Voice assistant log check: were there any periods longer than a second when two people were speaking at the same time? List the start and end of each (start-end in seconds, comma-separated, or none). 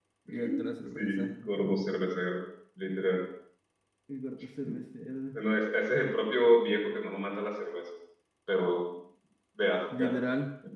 none